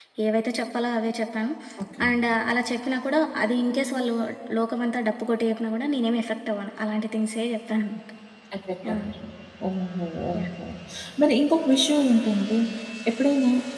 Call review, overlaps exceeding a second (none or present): none